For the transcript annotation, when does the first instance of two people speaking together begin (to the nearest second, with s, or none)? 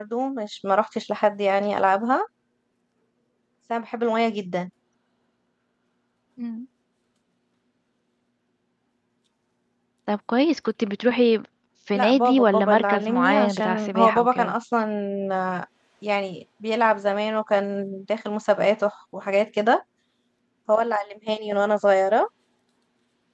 12 s